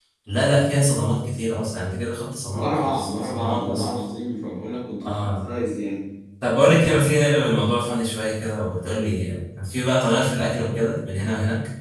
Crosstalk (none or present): present